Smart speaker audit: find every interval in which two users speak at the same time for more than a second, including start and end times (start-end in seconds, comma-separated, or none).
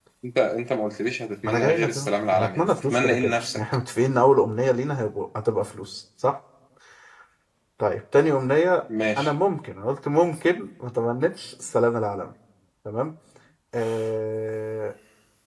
1.4-3.6